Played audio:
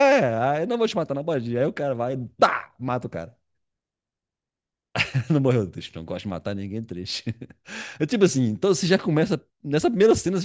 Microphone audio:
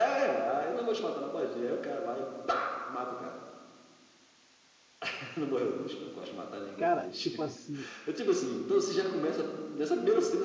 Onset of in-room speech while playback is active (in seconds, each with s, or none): 6.8 s